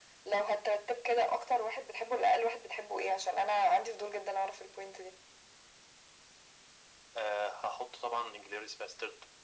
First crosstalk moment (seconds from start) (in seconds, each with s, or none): none